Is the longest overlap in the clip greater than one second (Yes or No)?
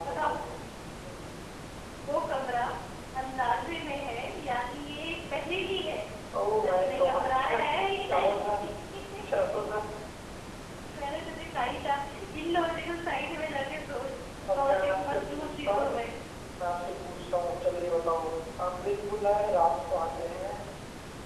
Yes